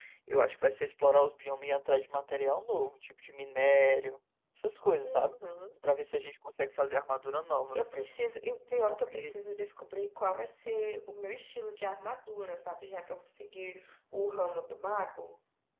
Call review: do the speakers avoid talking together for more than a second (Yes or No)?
Yes